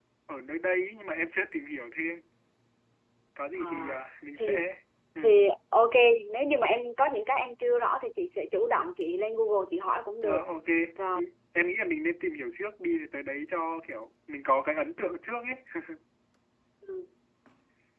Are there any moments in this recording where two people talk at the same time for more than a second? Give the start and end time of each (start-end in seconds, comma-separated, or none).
none